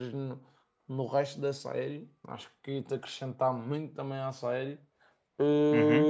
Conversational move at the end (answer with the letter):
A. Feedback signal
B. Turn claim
B